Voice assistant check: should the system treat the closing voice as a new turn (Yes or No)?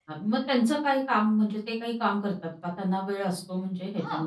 Yes